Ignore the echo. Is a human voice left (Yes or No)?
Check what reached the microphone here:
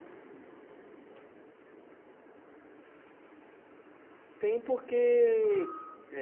Yes